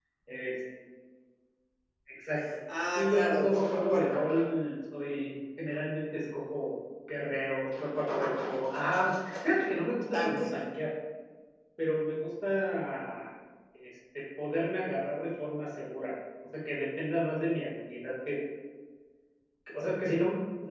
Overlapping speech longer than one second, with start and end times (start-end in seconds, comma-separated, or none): 3.0-4.2